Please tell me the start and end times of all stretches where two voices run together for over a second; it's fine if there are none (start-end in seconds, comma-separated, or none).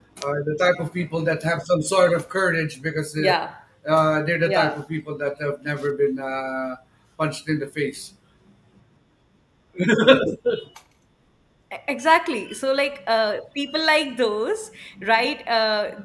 none